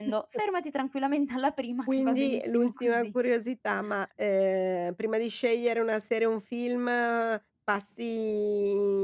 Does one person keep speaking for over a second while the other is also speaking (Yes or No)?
Yes